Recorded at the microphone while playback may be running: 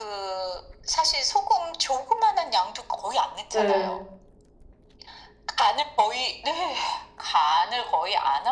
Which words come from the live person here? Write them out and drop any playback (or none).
네.